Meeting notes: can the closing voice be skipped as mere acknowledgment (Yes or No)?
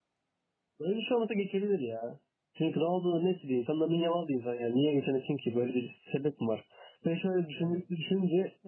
Yes